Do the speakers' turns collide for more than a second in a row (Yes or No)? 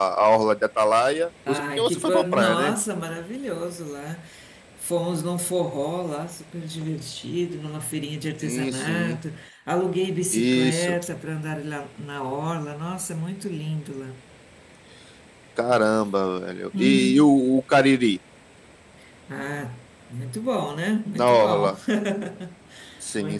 Yes